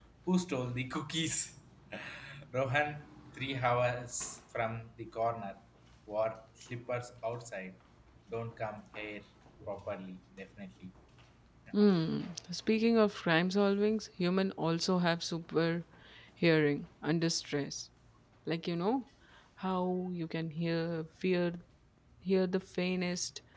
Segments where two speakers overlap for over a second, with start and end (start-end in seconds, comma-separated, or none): none